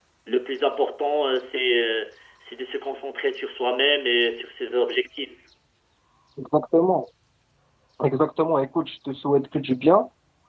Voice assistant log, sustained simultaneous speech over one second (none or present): none